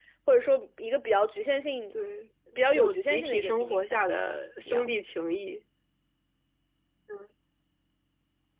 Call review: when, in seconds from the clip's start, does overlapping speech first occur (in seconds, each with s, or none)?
2.7 s